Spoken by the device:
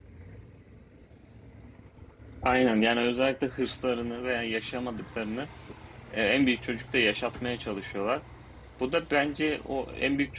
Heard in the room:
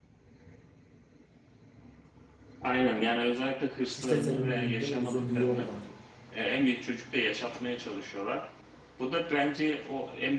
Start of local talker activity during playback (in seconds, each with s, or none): 4.0 s